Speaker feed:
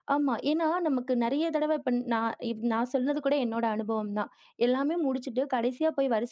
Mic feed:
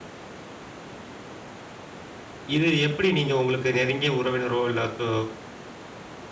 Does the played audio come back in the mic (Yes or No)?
No